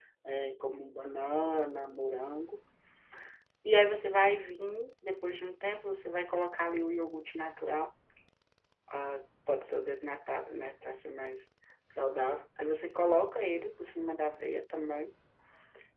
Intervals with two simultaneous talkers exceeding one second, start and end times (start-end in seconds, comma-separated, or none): none